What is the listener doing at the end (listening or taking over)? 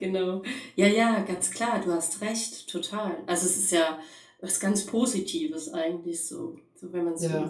taking over